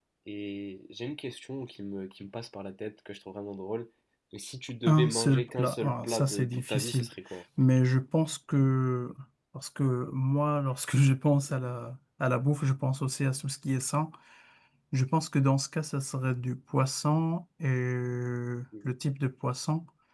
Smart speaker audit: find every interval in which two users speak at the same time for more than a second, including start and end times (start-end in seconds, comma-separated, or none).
4.9-7.1